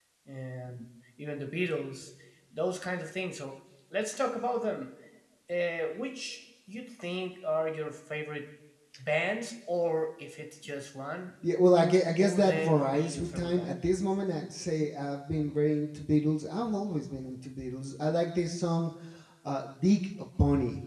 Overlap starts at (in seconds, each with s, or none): 12.2 s